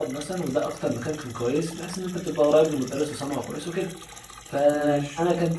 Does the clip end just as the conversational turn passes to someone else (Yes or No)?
No